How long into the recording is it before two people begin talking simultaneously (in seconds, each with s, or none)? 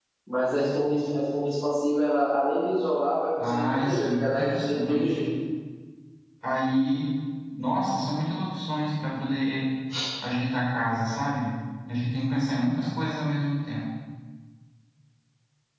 3.4 s